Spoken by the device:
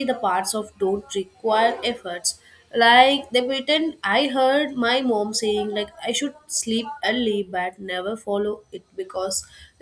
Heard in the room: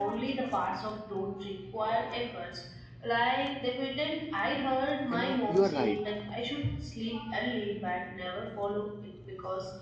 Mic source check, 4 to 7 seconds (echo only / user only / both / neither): both